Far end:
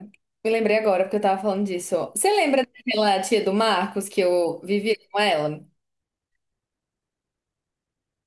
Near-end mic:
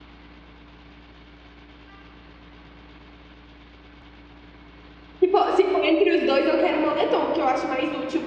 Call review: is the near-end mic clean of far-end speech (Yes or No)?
Yes